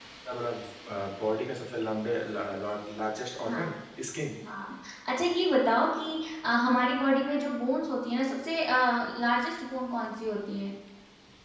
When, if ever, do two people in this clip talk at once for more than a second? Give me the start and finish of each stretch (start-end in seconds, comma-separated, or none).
none